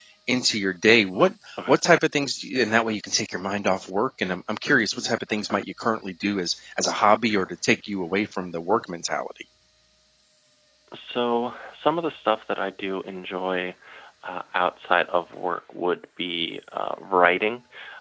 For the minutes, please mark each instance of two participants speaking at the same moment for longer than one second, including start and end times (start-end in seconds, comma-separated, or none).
none